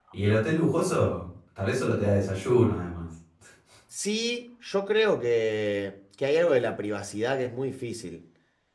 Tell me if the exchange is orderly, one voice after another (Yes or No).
Yes